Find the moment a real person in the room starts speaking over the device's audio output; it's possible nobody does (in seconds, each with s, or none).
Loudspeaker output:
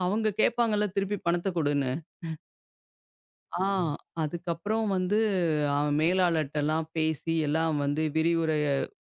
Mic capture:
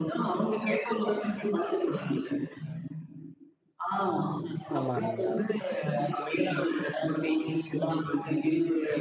4.8 s